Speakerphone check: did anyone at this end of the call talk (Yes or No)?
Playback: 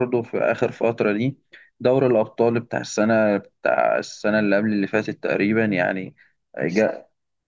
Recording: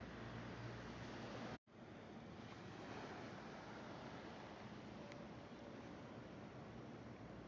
No